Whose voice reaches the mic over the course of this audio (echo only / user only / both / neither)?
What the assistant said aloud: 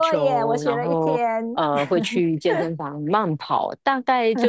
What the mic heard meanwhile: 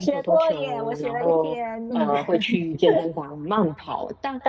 both